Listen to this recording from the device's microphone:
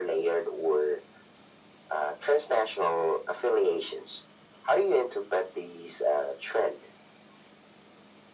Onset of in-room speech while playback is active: none

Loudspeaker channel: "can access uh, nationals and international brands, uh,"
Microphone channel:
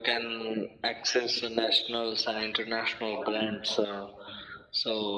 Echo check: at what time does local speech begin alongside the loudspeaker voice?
none

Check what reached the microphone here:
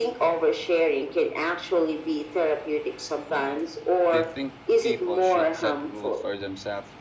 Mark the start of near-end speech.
4 s

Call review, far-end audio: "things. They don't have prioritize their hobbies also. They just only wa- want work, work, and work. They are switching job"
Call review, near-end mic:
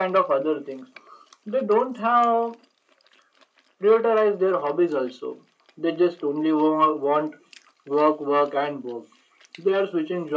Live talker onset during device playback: none

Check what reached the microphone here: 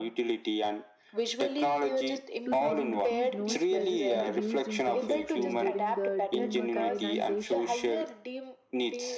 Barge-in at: 2 s

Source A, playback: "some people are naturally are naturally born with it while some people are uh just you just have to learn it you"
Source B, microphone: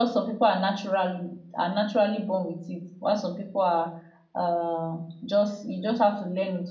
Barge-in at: none

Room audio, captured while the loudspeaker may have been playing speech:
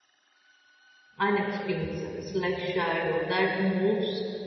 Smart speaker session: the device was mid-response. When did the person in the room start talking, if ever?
1 s

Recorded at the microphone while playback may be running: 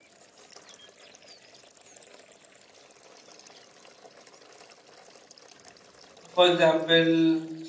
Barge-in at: 6 s

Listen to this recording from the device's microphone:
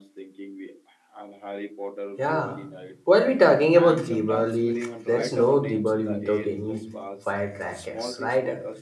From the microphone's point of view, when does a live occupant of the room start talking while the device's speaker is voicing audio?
2 s

